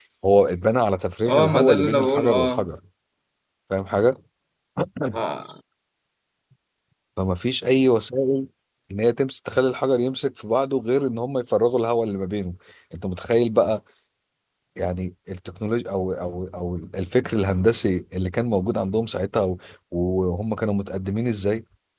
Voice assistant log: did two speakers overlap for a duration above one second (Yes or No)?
Yes